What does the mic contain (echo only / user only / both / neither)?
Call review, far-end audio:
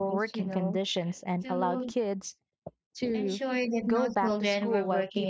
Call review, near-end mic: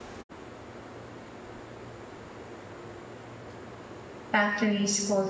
user only